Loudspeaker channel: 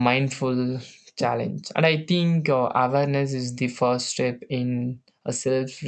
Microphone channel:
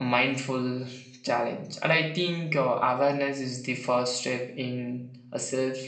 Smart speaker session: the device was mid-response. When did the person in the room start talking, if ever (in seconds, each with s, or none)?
none